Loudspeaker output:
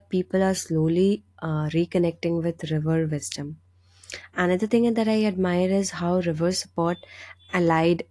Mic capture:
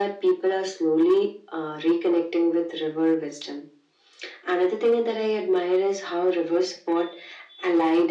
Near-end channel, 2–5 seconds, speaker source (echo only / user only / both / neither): echo only